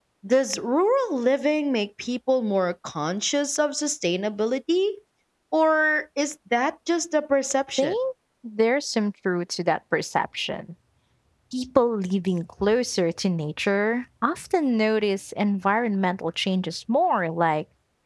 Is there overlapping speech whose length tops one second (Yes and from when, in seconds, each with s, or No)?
No